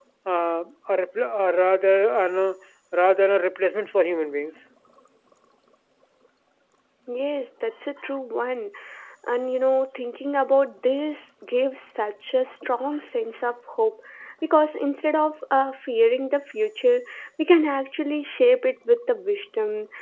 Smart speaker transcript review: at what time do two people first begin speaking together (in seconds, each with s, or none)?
none